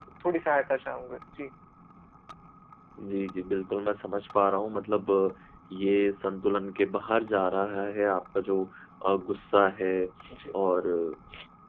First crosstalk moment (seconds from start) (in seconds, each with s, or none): none